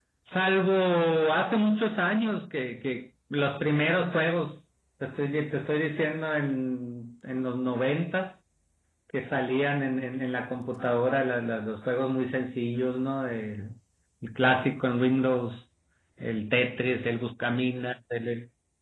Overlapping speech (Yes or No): No